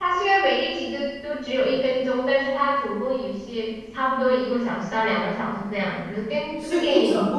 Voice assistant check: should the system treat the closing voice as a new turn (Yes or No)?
Yes